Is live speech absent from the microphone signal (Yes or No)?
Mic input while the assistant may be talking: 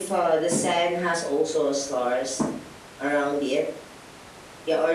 Yes